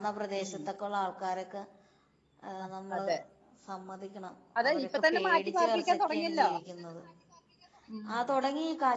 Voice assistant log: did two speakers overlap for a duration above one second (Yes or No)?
Yes